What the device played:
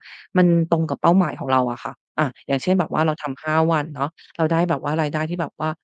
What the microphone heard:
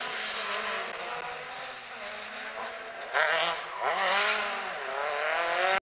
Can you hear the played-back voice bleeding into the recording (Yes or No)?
No